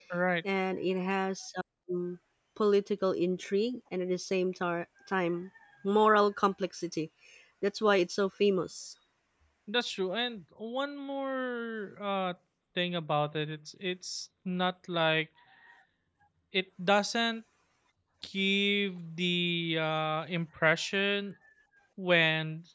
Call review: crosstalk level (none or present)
none